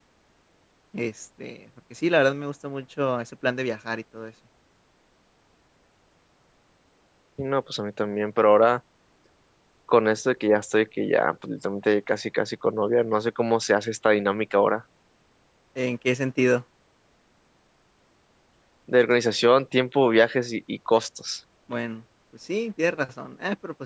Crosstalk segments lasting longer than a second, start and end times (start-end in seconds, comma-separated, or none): none